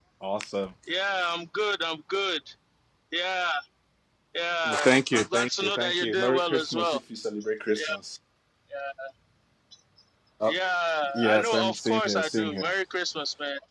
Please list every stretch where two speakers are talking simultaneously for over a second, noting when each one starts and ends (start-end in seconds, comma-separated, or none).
4.7-7.0, 11.1-12.7